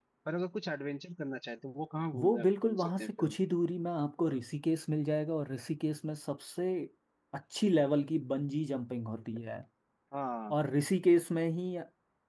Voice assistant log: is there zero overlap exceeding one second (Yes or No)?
No